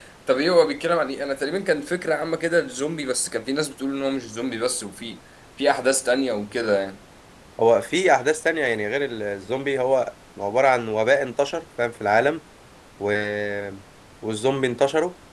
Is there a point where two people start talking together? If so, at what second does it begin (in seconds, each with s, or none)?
none